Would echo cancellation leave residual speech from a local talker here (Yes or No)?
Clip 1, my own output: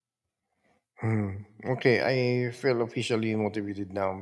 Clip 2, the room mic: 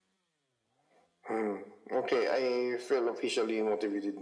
No